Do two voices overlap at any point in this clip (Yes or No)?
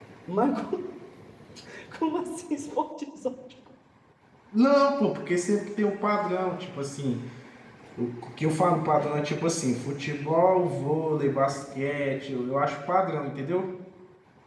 No